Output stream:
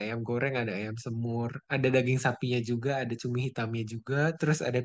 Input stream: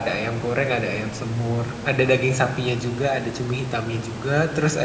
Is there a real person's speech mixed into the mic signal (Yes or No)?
No